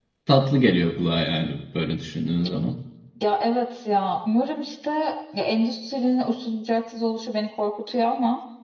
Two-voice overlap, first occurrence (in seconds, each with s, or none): none